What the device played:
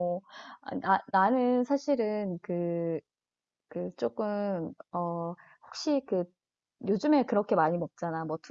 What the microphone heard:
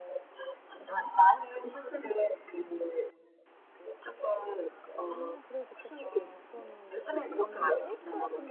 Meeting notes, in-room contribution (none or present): present